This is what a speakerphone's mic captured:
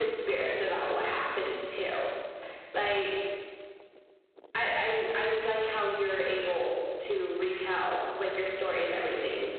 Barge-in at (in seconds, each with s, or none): none